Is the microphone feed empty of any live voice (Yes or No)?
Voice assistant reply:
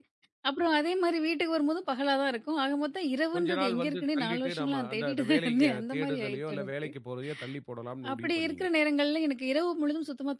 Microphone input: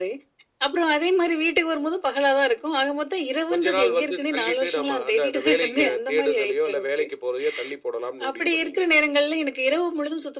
Yes